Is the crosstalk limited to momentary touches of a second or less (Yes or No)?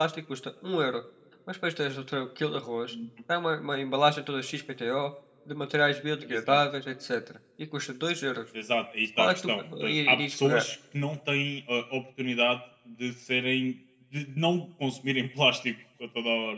No